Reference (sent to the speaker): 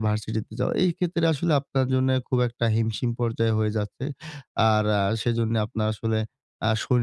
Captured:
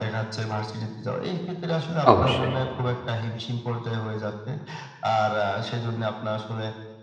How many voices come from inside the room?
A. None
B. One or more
B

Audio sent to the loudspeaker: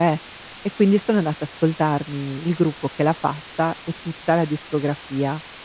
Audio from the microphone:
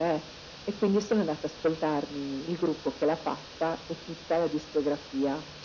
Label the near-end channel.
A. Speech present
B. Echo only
B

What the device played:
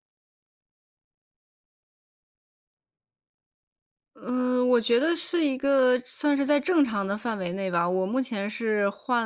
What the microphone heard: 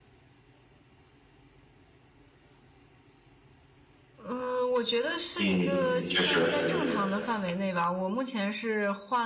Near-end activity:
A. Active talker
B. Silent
A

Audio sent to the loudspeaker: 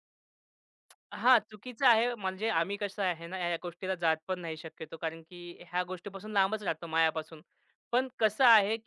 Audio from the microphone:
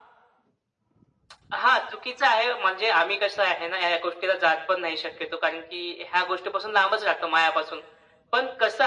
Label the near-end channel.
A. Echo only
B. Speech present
A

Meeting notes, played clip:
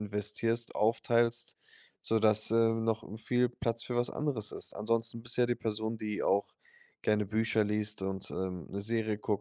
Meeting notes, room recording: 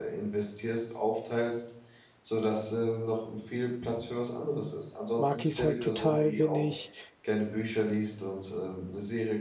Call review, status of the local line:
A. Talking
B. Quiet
A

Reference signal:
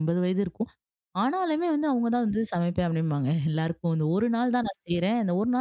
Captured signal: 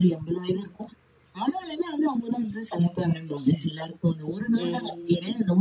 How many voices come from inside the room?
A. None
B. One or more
B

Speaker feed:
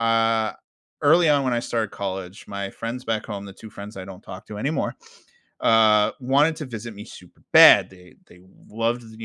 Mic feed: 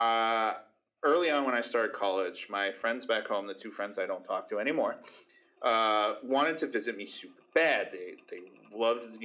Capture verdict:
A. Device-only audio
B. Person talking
A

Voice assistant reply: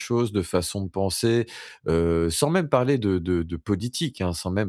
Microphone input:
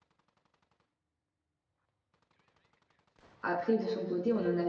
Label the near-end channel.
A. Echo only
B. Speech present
B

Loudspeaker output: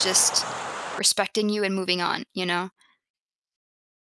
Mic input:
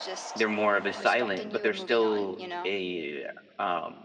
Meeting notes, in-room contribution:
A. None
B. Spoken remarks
B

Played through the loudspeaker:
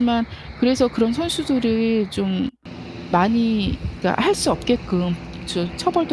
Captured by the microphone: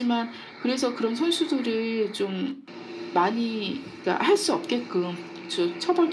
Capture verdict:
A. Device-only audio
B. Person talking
A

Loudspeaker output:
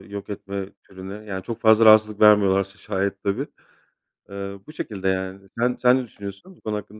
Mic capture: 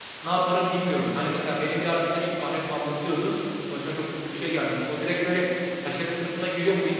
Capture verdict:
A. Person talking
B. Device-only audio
A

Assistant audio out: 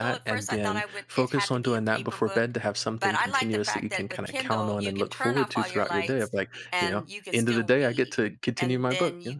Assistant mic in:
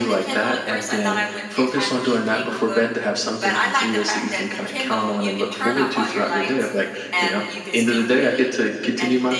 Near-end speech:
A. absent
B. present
A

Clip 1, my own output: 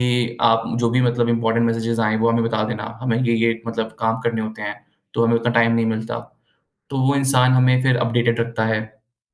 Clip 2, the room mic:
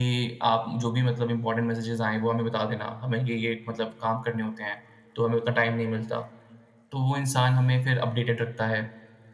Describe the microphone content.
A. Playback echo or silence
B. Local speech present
A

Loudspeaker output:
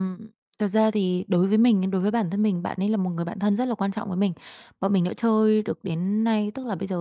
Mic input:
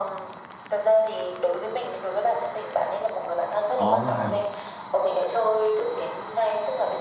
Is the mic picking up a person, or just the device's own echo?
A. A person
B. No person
A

